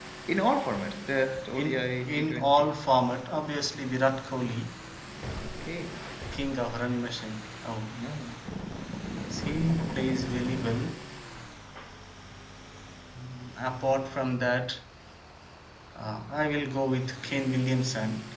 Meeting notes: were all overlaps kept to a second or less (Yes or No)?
No